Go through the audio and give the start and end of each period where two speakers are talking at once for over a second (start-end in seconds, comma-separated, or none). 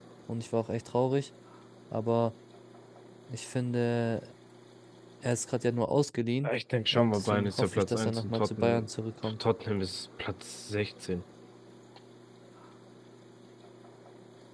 6.9-8.9